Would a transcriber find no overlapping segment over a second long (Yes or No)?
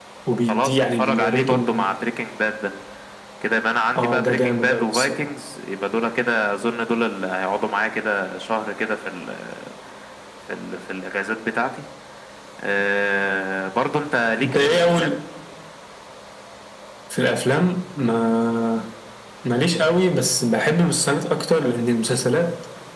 No